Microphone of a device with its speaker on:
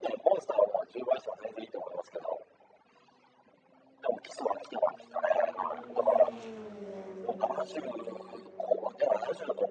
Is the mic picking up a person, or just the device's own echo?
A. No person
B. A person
A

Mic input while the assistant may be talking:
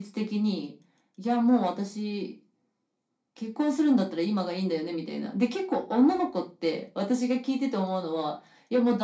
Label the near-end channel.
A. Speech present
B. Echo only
B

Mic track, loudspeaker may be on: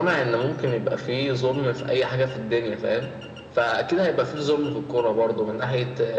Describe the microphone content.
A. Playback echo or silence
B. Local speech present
A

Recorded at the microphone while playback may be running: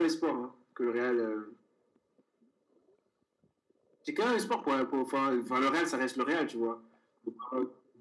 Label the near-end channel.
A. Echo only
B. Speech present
A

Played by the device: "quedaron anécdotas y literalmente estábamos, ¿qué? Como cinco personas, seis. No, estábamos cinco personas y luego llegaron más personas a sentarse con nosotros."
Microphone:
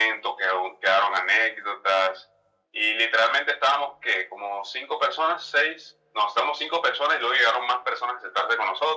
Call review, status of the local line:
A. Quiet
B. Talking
A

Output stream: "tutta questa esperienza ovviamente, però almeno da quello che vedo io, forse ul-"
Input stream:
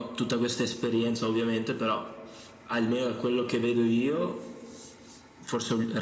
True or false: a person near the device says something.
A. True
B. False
B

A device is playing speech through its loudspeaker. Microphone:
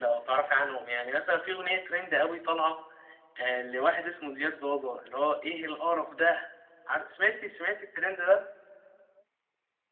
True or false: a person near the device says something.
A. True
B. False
B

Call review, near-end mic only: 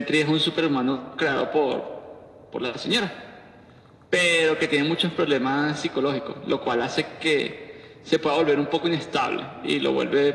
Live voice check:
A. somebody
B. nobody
B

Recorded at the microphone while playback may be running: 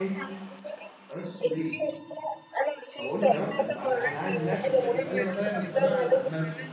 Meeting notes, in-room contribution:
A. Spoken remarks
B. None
A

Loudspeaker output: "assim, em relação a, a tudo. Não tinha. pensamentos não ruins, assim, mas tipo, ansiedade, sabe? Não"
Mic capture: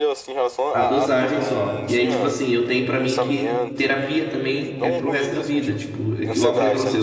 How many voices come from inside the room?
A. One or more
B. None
A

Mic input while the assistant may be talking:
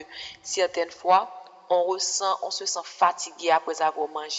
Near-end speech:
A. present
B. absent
B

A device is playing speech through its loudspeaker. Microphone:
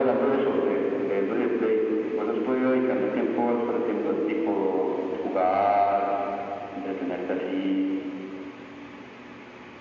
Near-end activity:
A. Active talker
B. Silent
B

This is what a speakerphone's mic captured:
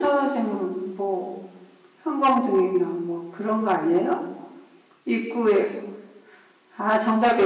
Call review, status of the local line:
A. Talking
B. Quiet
B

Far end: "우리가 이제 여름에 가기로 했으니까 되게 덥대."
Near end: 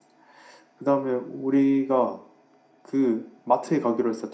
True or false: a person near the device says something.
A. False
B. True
B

